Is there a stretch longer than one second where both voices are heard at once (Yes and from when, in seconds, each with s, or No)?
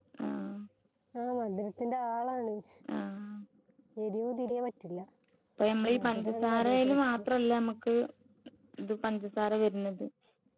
Yes, from 6.0 s